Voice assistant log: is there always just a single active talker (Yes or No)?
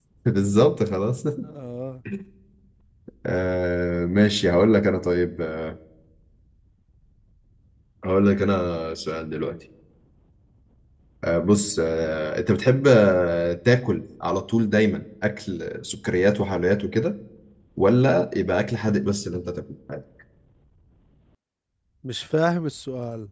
Yes